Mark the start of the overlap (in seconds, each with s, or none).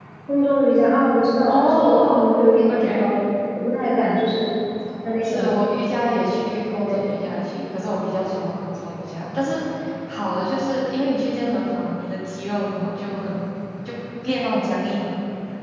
1.5 s